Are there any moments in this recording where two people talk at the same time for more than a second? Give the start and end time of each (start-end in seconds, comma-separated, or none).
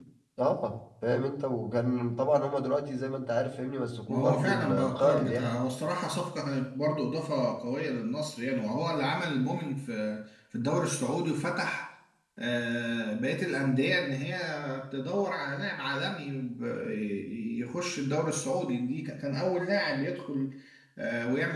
4.1-5.6